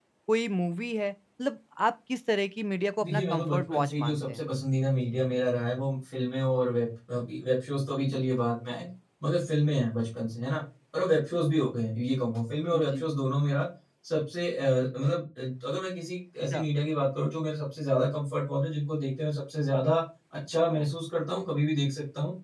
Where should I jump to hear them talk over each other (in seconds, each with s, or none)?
3.0 s